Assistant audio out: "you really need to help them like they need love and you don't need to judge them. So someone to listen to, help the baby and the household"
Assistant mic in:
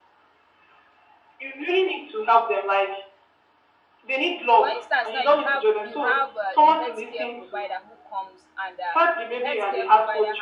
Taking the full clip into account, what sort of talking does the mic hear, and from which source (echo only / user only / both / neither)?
both